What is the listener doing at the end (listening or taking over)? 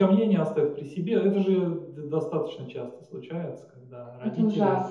listening